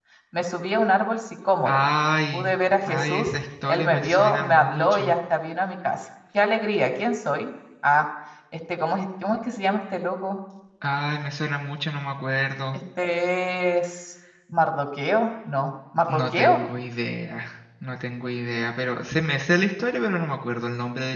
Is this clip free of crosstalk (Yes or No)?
No